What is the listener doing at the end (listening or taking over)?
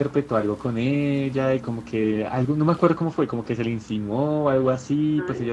listening